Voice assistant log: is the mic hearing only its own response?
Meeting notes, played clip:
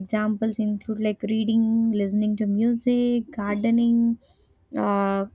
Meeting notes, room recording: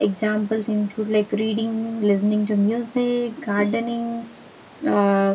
Yes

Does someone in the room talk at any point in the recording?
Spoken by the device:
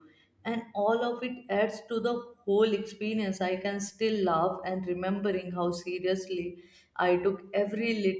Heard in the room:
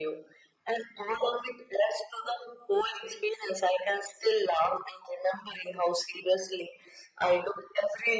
No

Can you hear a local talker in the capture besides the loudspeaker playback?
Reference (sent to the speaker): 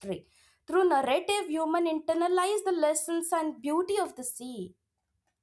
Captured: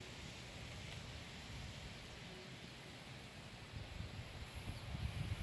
No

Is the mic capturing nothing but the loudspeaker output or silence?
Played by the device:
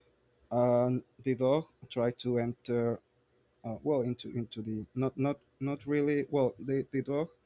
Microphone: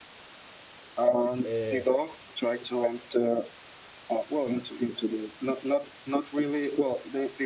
No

